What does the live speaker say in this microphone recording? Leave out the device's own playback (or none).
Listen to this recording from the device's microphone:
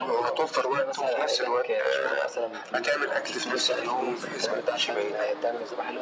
none